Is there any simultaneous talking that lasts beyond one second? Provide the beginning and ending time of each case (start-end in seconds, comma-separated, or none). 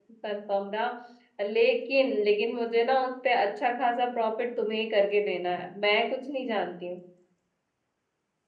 none